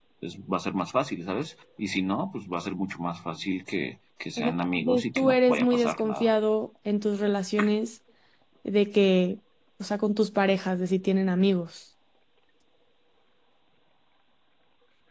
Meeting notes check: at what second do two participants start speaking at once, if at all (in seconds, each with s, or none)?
4.4 s